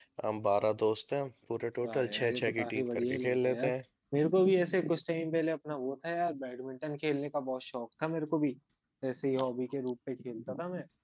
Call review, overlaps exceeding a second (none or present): present